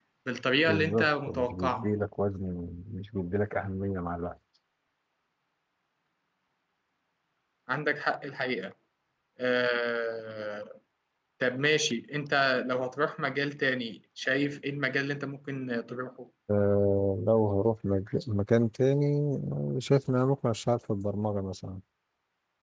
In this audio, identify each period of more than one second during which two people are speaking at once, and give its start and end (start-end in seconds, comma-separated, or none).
0.7-1.9